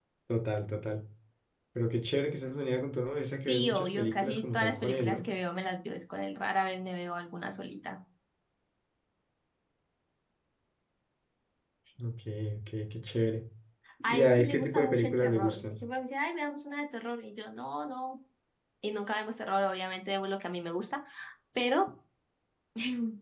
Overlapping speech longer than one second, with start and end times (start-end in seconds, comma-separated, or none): 3.4-5.2, 14.0-15.8